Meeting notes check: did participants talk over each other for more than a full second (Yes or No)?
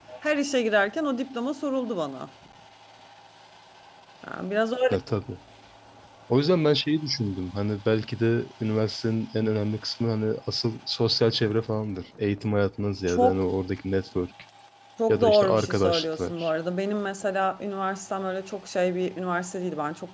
Yes